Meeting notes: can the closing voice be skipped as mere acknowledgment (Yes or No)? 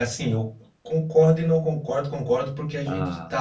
Yes